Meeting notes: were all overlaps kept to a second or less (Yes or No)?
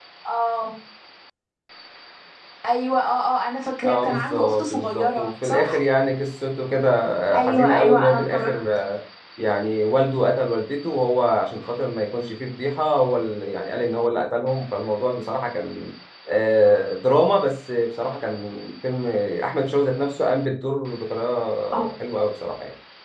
No